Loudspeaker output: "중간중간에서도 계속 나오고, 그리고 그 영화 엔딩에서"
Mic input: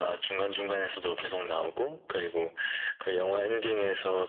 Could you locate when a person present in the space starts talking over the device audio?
none

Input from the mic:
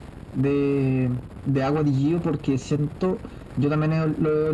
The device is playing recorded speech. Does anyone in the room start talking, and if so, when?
none

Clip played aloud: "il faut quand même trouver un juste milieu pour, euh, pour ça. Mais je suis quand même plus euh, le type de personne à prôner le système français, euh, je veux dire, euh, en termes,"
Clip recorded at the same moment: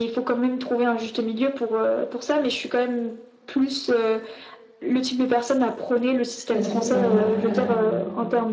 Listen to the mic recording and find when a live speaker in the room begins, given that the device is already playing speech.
7 s

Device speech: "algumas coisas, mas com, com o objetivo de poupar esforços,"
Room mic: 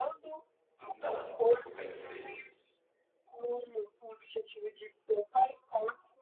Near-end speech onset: 1 s

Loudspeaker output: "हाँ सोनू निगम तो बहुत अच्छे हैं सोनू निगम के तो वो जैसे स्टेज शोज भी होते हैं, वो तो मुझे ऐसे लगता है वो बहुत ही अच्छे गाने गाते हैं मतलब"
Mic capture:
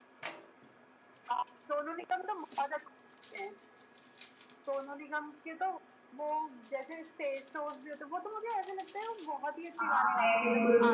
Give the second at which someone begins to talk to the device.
10 s

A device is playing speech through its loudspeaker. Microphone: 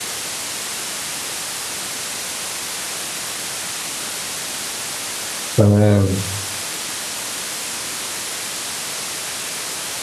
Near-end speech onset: 6 s

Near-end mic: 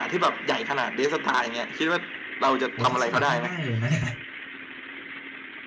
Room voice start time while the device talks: 3 s

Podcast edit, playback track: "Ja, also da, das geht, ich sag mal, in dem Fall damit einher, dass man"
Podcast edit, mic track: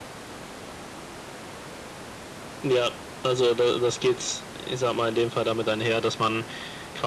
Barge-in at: none

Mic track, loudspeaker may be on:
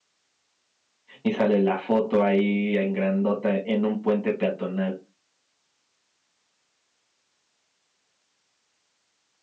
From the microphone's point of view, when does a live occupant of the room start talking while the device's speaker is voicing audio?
1 s

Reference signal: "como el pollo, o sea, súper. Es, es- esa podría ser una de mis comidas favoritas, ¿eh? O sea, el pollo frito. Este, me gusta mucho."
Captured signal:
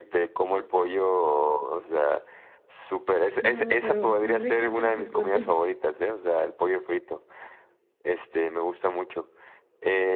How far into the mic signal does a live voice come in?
3 s

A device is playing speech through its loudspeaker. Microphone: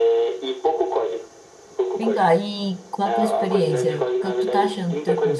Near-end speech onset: 2 s

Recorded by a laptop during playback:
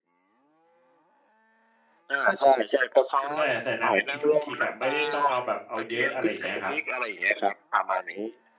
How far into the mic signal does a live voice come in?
3 s

